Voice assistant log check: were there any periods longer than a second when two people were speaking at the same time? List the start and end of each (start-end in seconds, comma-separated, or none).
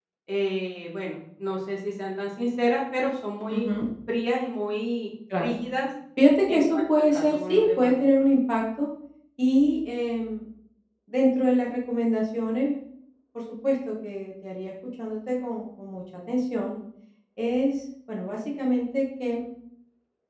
6.5-7.9